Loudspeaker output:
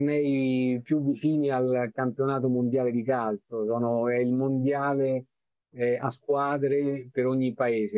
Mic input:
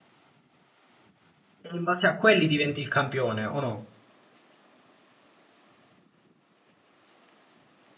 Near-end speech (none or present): present